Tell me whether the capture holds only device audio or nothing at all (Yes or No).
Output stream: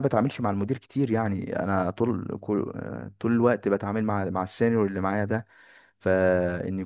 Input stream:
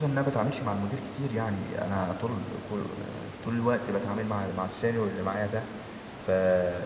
Yes